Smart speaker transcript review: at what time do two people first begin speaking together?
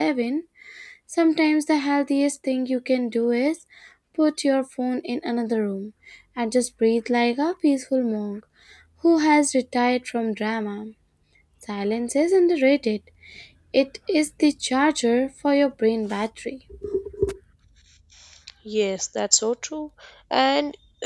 none

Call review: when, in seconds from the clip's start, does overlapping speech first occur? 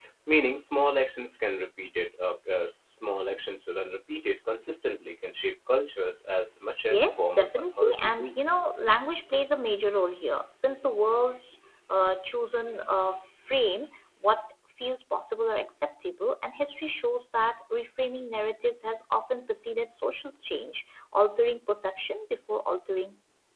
6.9 s

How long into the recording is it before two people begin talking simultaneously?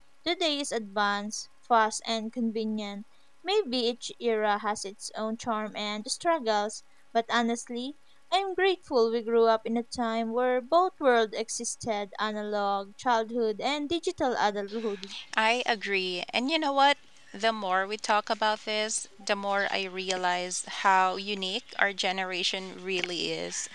none

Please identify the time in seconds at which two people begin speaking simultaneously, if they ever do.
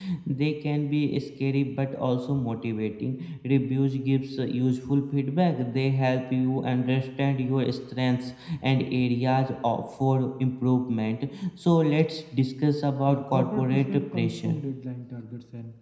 13.1 s

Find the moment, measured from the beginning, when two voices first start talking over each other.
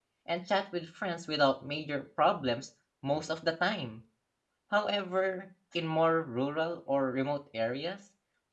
none

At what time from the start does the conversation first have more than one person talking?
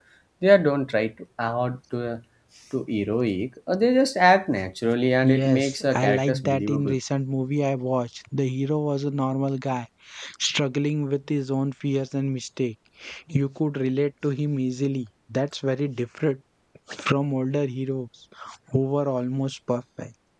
5.2 s

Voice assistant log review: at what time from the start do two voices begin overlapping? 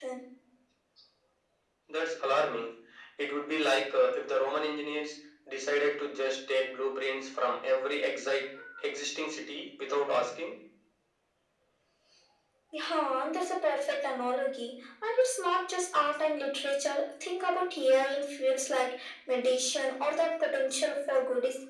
none

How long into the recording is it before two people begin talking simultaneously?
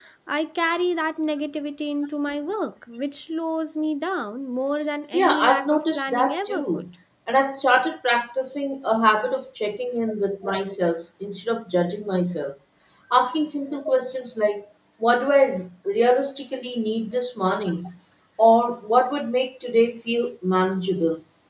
5.1 s

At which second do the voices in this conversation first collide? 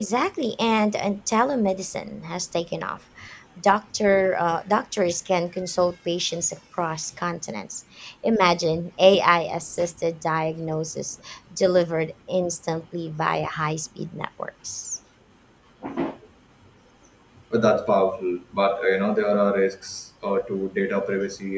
none

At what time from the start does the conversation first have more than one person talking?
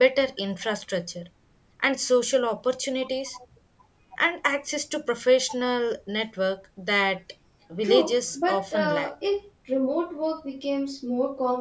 7.8 s

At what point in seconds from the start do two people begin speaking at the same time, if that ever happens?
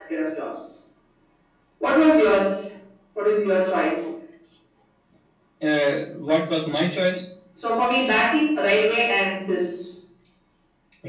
none

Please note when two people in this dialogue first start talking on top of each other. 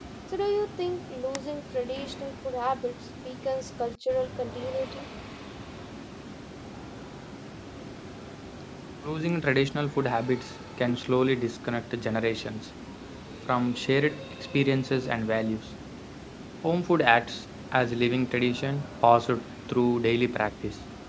none

